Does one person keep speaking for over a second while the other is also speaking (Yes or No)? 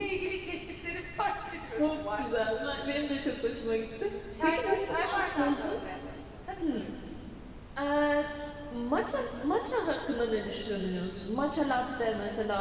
Yes